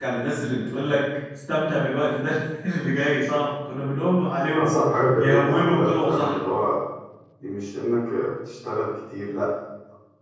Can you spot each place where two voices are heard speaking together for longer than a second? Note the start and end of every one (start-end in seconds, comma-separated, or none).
4.5-6.4